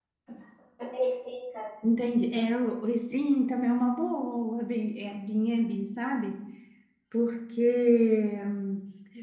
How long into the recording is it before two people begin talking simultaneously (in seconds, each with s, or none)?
none